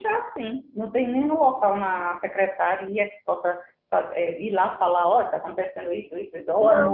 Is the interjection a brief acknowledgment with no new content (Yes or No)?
No